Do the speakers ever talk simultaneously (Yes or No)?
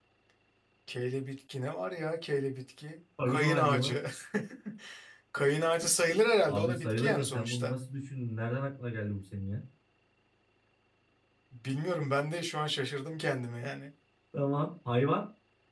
Yes